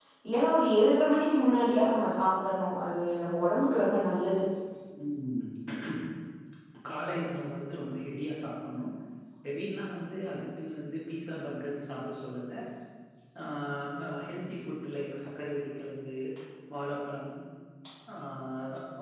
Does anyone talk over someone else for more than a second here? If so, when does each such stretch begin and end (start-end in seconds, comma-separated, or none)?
none